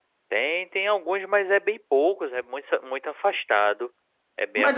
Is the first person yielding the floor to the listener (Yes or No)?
Yes